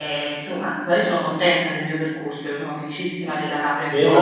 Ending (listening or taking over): taking over